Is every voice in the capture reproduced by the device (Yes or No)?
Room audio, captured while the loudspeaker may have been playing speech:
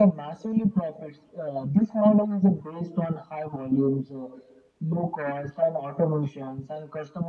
Yes